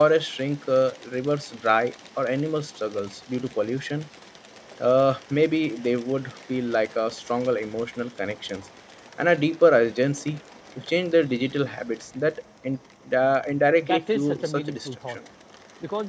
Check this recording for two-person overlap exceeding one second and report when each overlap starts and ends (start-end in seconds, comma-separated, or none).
13.8-15.2